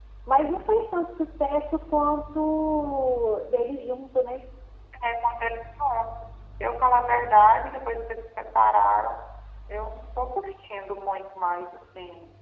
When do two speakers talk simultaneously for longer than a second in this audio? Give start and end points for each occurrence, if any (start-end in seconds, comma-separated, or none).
none